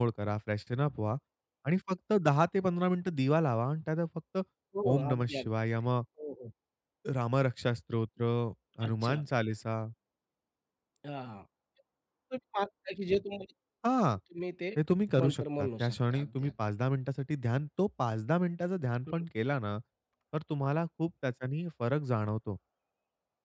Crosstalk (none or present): present